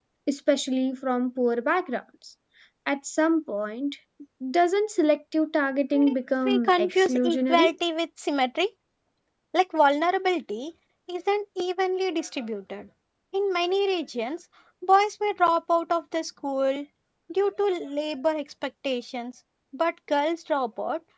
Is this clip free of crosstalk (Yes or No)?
No